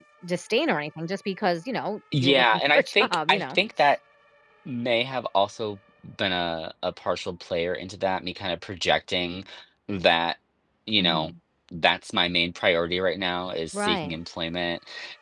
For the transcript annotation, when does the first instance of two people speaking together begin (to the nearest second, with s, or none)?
2 s